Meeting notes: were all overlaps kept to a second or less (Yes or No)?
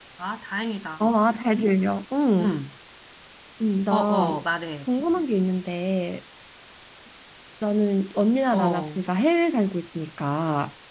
Yes